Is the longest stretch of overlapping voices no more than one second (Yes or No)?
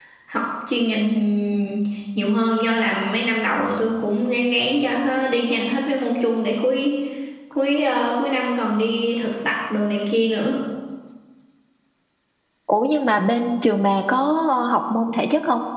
Yes